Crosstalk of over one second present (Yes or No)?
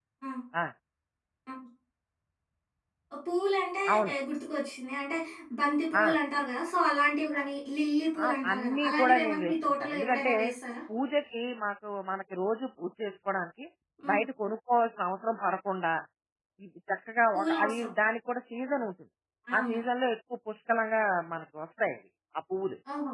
Yes